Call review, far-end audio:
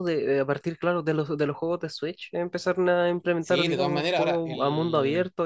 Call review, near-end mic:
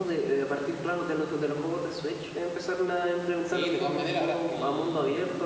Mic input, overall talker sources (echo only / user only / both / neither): echo only